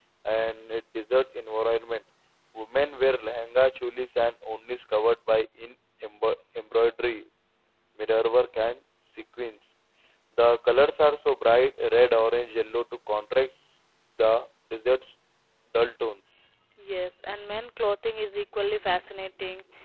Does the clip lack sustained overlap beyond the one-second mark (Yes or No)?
Yes